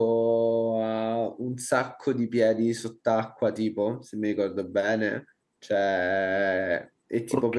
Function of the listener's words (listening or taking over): listening